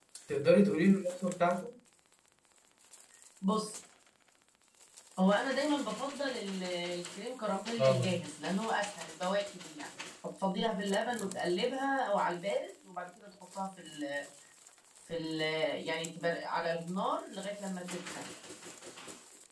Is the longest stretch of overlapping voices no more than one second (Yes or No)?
Yes